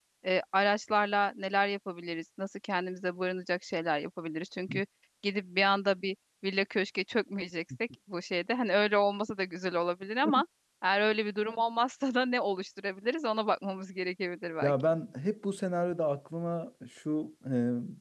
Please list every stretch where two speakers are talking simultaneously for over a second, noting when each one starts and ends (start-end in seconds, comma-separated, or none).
none